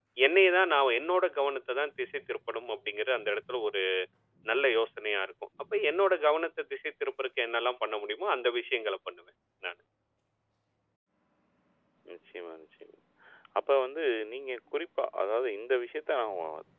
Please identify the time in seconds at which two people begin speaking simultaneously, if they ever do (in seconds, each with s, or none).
none